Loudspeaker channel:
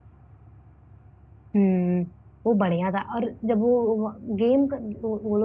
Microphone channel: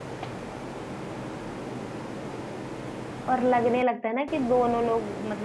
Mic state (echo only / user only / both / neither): user only